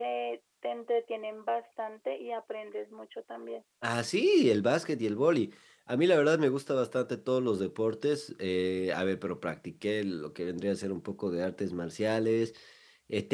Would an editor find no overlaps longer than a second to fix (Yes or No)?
Yes